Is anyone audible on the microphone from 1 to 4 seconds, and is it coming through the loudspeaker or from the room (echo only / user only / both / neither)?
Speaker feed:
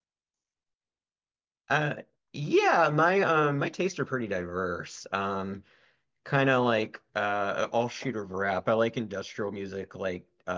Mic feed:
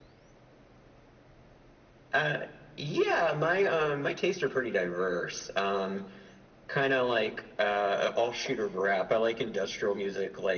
echo only